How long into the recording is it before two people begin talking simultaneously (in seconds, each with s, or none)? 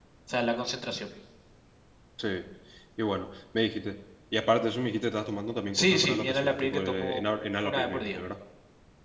5.7 s